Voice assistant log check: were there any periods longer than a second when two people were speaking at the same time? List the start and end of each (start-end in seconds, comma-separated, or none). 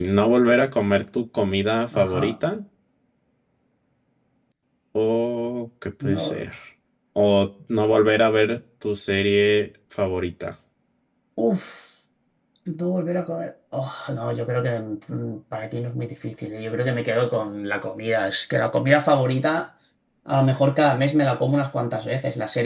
none